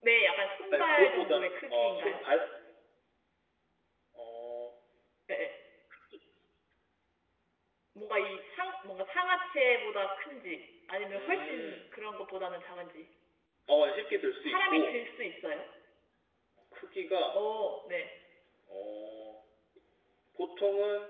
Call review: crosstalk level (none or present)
present